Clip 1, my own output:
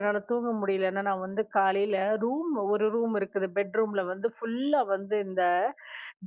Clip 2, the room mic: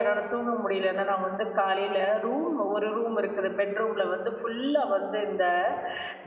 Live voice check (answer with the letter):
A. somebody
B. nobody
B